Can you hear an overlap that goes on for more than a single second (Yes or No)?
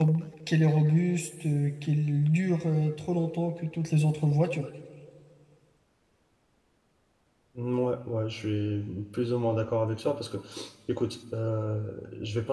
No